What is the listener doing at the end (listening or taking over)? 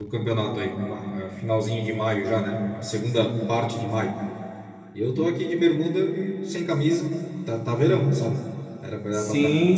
taking over